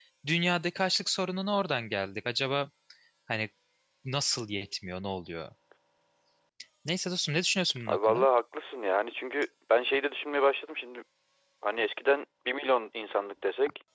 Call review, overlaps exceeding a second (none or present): none